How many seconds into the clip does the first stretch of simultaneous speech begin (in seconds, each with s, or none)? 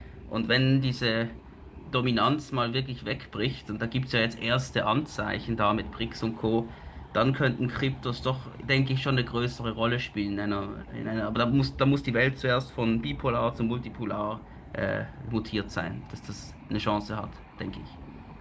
none